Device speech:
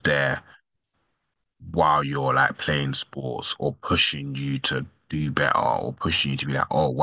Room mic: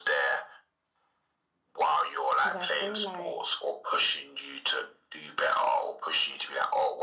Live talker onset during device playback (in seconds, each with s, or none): 2.4 s